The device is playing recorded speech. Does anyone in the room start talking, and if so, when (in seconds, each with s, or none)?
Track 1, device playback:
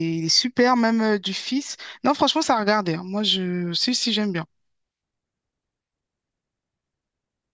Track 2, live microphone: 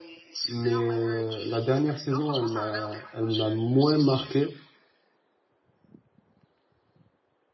0.4 s